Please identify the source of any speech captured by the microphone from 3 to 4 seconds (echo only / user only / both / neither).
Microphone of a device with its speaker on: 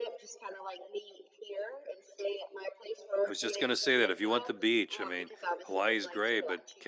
both